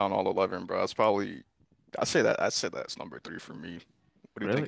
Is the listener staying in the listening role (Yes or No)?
No